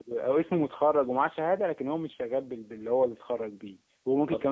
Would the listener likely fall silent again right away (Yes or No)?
Yes